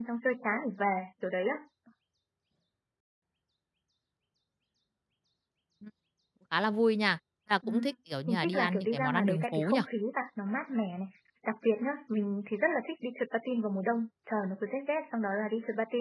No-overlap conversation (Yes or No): No